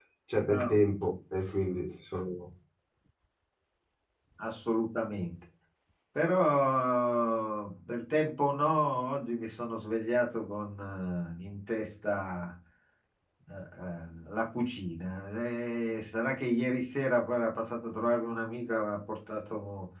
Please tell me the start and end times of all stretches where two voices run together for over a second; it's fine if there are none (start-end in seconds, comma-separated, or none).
none